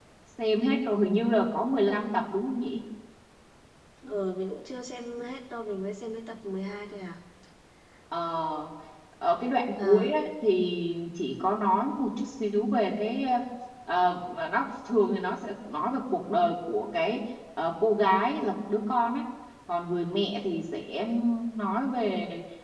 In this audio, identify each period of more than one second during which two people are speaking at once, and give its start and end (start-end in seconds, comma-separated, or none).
none